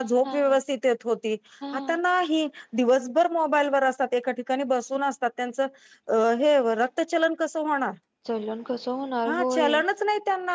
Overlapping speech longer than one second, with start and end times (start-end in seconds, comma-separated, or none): none